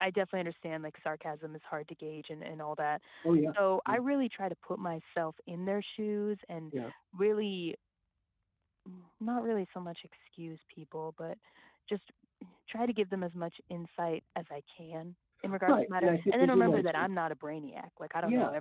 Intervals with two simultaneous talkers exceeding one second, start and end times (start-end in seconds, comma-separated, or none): 15.7-17.1